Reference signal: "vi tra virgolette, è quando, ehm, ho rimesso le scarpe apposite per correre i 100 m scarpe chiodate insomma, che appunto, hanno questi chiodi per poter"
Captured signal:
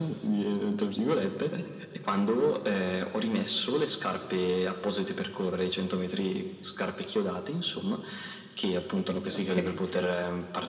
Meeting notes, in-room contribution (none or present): present